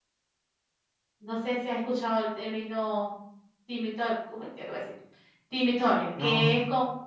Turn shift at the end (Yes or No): Yes